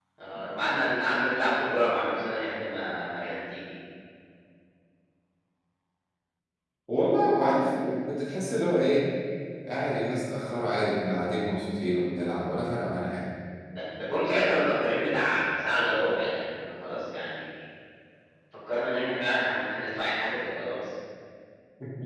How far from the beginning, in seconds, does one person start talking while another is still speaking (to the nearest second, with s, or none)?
none